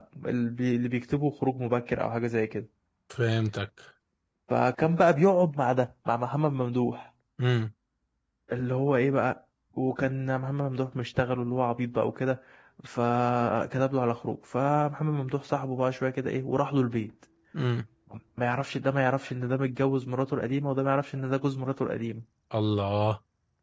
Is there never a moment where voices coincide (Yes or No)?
Yes